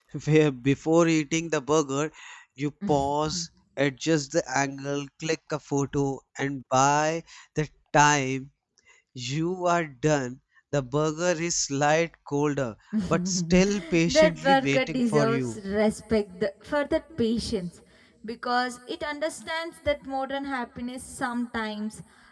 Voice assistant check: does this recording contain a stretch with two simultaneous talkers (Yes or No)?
Yes